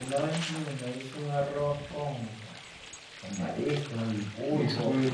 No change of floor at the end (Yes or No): Yes